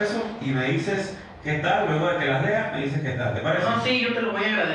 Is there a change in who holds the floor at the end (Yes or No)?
Yes